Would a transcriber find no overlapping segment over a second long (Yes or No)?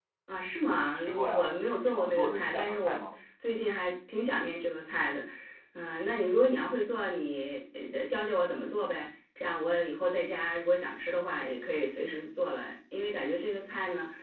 No